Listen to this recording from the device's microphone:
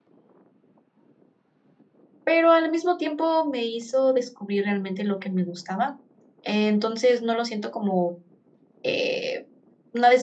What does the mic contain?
user only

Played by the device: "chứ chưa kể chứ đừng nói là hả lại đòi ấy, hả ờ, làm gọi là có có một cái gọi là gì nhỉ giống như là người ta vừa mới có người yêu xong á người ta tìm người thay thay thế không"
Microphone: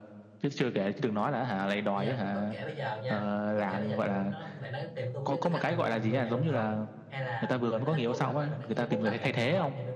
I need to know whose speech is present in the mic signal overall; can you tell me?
both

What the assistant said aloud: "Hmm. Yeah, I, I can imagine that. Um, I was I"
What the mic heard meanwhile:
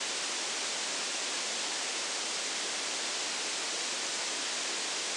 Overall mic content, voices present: neither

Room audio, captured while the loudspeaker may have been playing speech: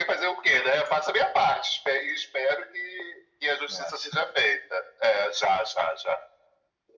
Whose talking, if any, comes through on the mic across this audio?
both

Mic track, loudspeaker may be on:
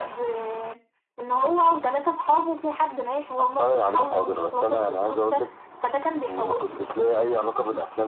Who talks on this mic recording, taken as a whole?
echo only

